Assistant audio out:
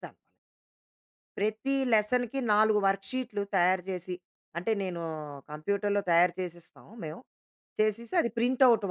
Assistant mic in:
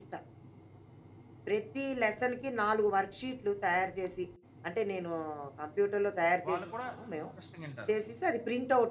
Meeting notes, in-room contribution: present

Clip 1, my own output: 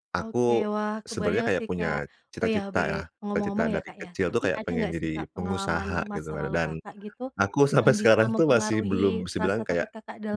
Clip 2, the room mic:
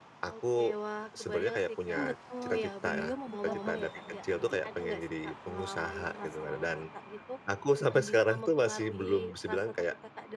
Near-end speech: present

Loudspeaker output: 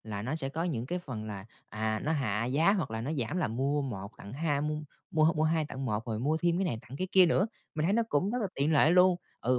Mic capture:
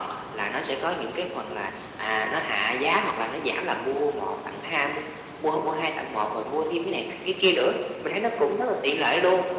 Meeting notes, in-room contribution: none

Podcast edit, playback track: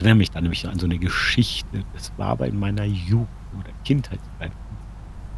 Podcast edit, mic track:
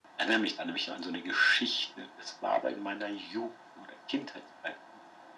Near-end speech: none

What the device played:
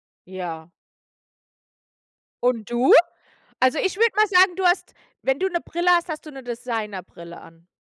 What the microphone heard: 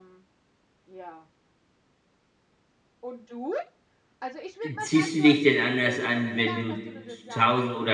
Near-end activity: present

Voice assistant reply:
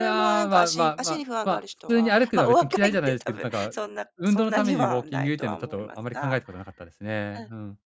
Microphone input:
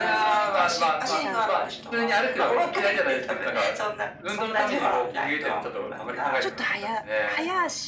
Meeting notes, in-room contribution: present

